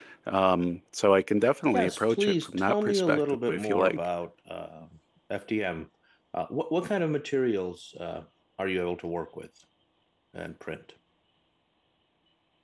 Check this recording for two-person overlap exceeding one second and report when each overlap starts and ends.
1.7-4.0

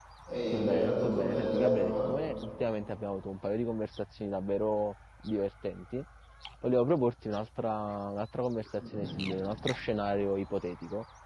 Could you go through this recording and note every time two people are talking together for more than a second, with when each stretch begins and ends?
0.5-2.1

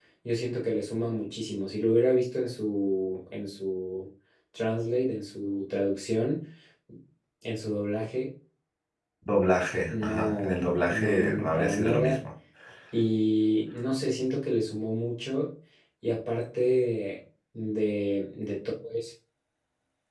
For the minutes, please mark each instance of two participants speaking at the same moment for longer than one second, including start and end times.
9.9-12.2

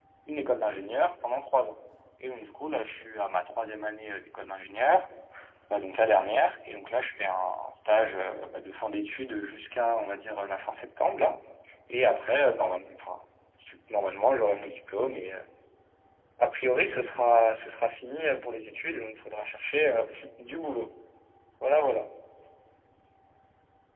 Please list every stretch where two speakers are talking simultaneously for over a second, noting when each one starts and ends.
none

